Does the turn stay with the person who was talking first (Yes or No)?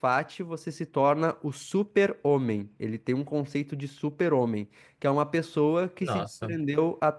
Yes